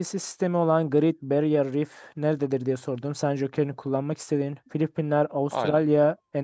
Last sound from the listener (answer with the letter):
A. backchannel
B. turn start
A